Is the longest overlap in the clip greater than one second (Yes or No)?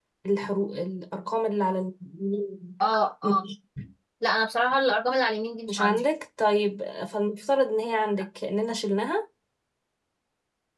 No